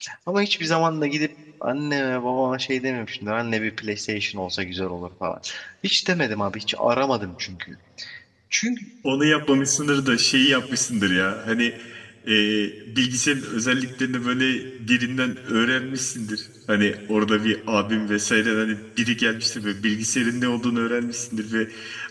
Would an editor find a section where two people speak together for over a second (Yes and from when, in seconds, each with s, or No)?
No